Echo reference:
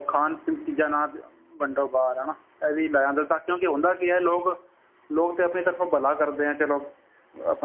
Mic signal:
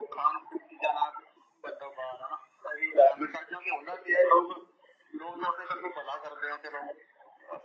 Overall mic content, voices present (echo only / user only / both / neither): echo only